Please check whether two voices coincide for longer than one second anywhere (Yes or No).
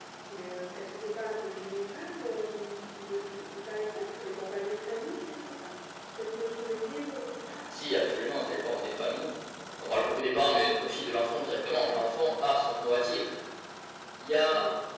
No